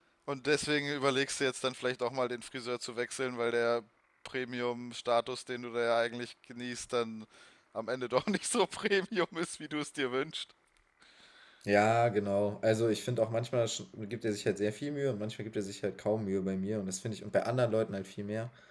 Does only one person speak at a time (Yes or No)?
Yes